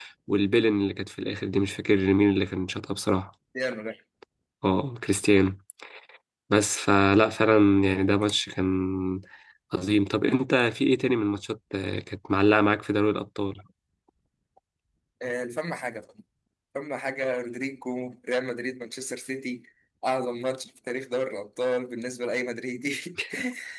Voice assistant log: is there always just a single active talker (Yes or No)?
Yes